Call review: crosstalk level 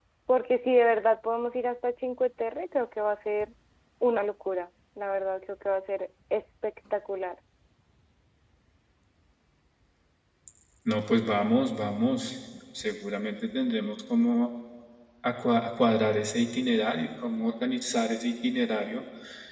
none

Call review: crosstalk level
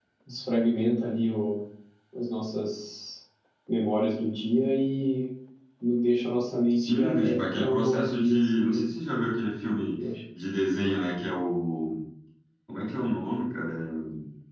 present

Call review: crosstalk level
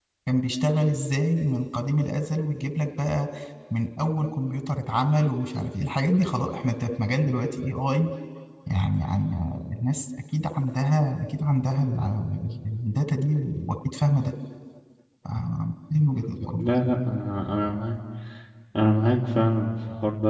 none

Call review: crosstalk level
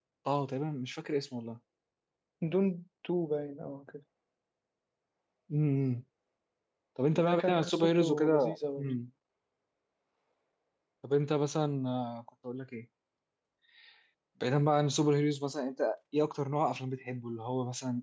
present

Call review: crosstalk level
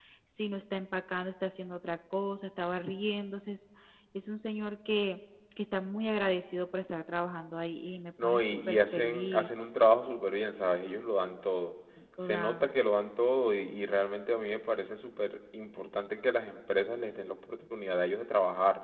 present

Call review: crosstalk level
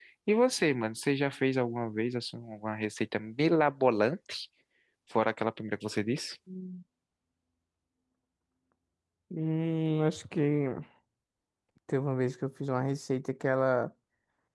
none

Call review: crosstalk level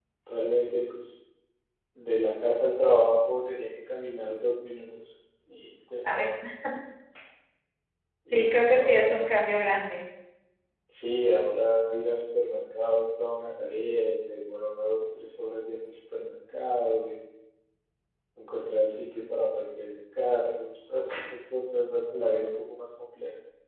present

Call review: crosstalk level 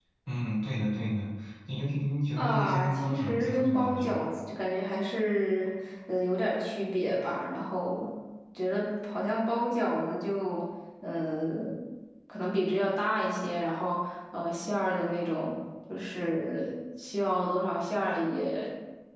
present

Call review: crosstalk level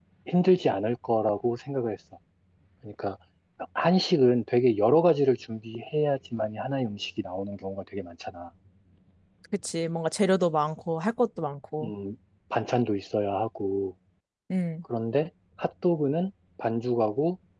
none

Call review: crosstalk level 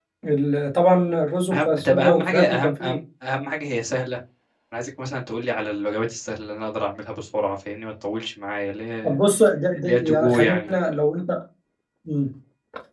present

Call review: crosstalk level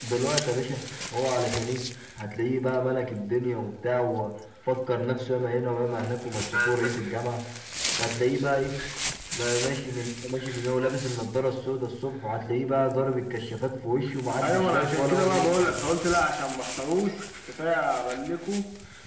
present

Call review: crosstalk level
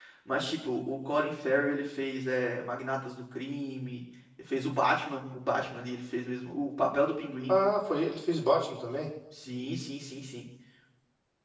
none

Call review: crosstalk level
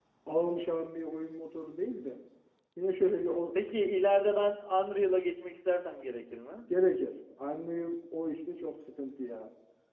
none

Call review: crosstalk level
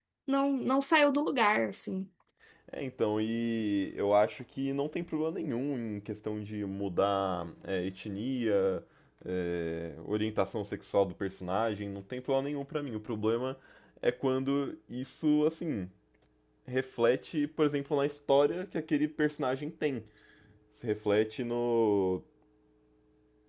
none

